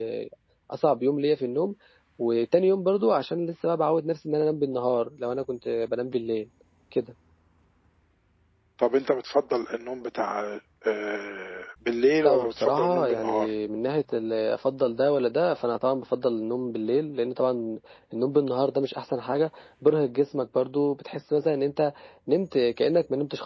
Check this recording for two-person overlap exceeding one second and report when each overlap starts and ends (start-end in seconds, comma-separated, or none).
12.2-13.5